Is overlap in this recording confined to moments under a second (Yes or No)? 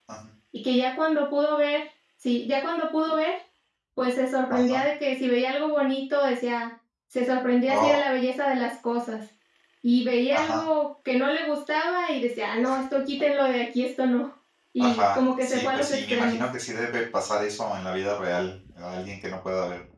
No